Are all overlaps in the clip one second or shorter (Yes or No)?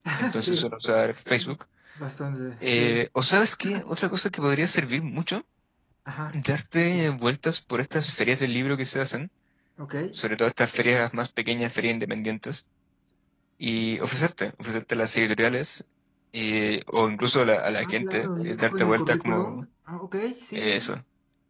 No